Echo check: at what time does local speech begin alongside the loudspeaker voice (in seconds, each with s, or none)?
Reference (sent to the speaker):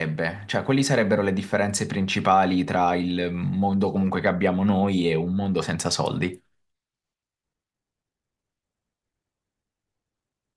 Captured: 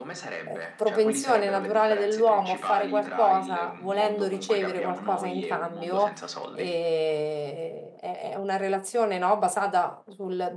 0.4 s